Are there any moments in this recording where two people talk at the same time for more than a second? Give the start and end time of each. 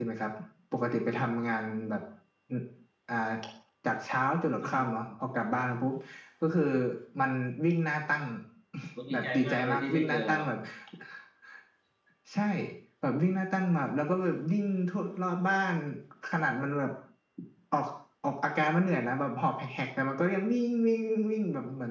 9.1-10.4

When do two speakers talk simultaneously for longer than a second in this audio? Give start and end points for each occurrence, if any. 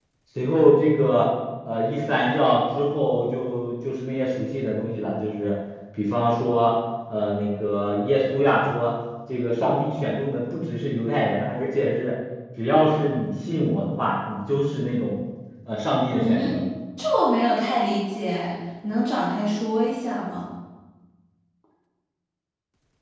none

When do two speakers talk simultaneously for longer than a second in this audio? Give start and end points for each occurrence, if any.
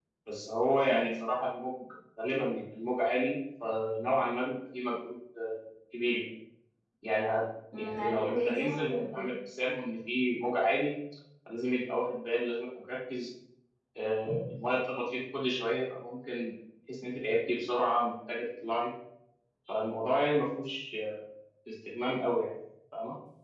7.8-9.3

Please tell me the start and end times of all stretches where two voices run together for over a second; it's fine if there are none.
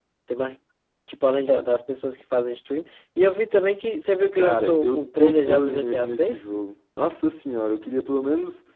4.3-6.5

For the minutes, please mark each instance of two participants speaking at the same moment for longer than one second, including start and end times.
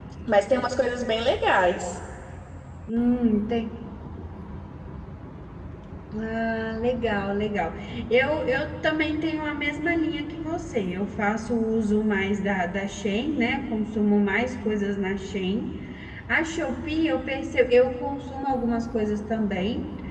none

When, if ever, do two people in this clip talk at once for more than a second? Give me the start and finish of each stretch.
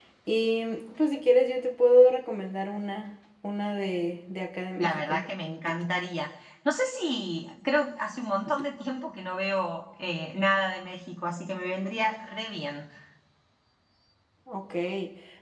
none

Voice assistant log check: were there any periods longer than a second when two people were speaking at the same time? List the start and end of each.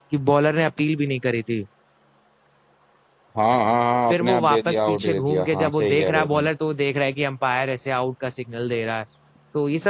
4.1-6.5

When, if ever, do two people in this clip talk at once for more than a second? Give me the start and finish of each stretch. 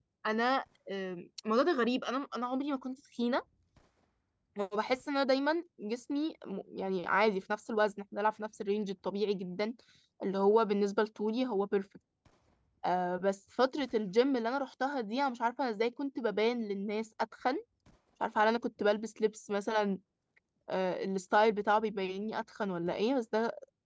none

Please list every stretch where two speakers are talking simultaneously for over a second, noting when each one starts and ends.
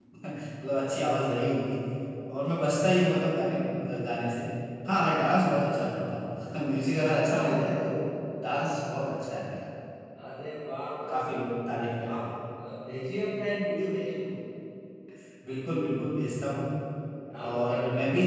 none

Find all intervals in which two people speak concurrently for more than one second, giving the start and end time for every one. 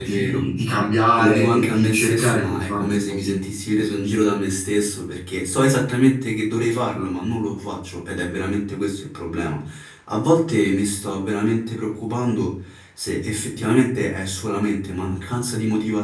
1.2-3.4

